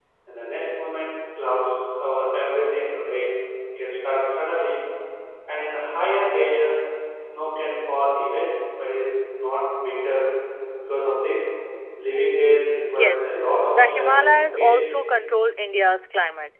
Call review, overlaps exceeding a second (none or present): present